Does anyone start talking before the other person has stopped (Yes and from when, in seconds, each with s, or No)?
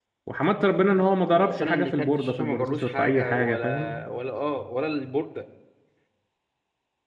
Yes, from 1.3 s